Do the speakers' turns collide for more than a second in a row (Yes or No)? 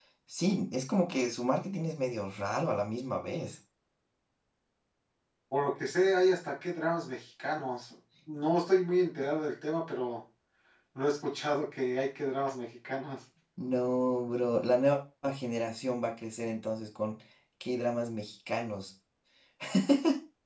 No